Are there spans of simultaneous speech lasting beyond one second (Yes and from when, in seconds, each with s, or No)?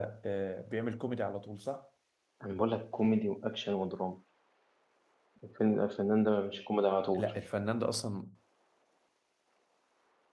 No